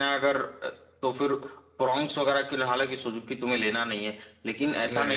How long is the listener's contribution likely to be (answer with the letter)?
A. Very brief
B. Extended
A